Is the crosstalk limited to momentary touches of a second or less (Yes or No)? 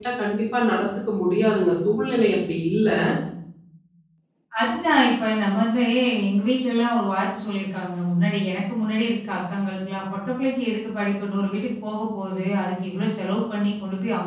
Yes